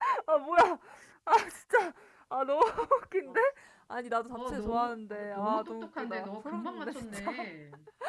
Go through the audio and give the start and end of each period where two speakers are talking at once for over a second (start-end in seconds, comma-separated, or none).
4.4-7.5